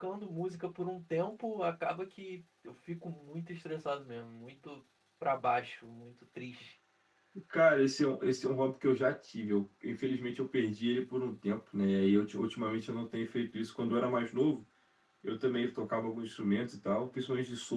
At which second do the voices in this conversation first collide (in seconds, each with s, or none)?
none